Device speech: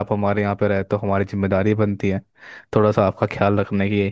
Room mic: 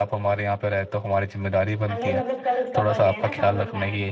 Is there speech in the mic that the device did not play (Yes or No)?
Yes